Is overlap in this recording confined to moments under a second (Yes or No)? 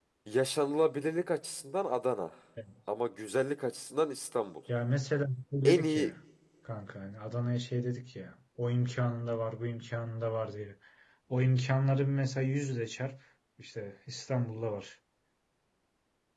Yes